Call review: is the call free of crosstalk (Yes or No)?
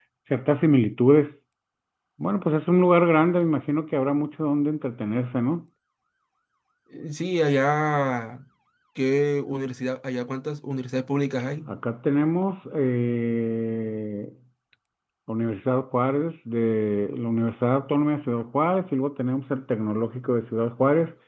Yes